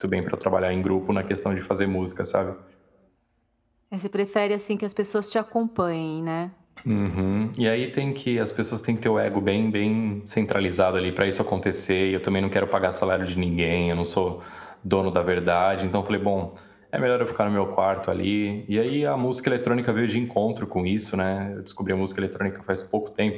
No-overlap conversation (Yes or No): Yes